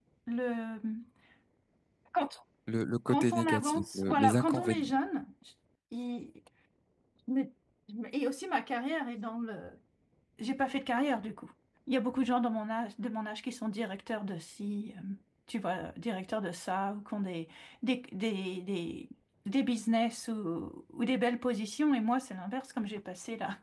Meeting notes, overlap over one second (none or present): present